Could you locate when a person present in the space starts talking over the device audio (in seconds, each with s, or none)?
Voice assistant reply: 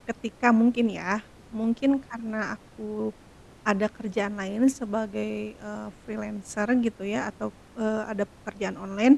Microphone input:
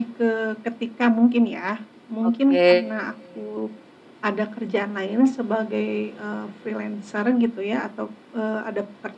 2.3 s